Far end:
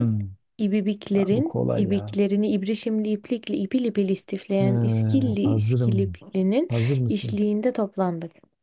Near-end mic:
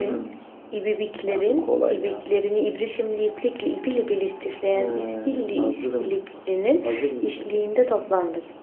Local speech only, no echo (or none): none